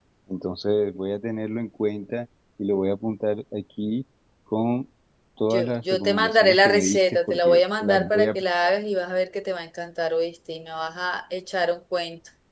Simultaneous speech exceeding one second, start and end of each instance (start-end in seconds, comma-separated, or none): 5.5-8.7